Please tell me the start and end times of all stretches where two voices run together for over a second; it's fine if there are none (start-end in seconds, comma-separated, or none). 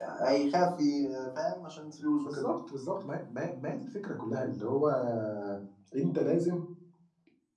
none